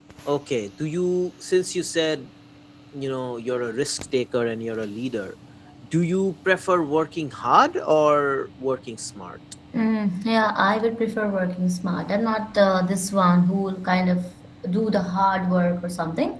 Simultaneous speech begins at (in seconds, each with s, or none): none